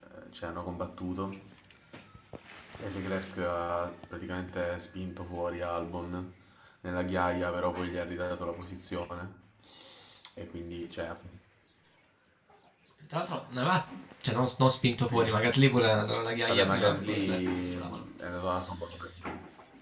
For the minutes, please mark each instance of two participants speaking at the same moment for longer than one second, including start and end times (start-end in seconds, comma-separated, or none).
16.5-18.0